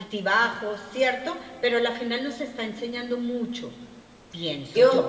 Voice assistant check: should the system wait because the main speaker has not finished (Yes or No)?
No